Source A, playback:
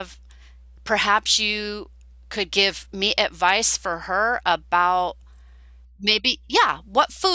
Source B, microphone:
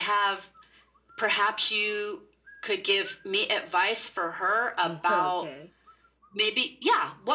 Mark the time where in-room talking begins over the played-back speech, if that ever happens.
5 s

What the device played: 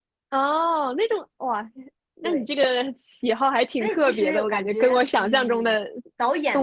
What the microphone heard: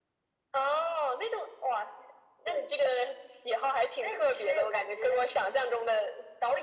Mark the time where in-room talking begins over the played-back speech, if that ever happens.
none

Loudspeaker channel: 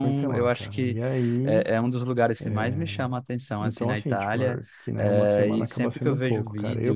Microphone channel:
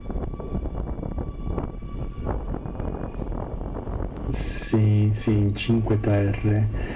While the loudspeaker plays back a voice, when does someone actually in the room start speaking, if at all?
4 s

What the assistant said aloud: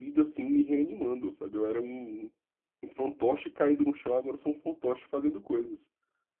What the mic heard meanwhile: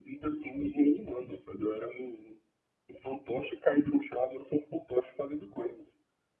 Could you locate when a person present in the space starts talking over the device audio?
none

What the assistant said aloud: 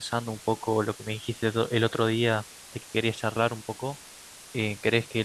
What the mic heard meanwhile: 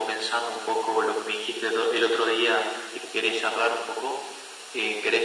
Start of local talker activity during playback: none

